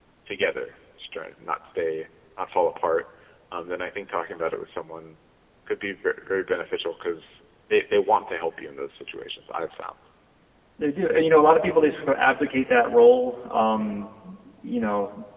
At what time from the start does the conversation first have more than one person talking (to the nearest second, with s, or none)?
none